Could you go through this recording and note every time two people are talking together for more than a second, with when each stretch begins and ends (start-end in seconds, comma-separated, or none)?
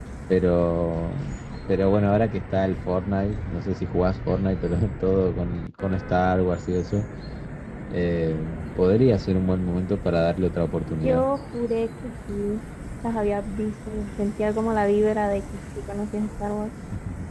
none